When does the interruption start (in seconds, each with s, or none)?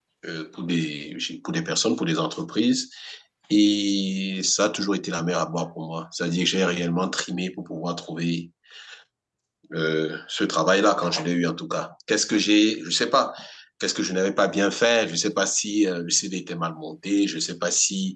none